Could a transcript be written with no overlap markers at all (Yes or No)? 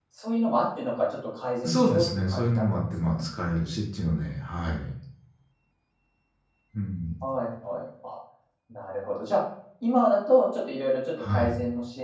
No